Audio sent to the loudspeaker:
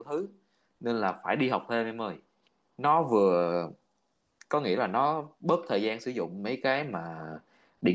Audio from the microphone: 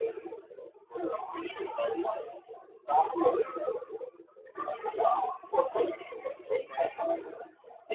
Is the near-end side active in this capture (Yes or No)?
No